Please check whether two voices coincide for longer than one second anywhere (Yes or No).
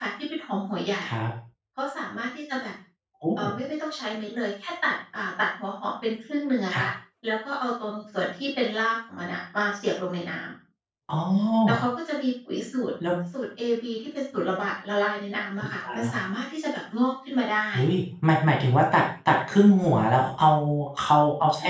No